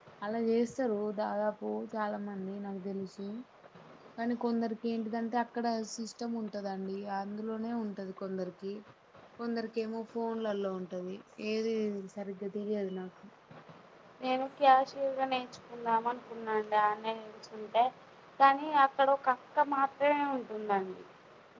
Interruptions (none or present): none